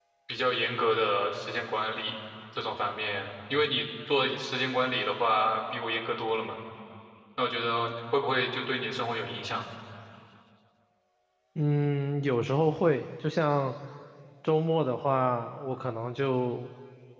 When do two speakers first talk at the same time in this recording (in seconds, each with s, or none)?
none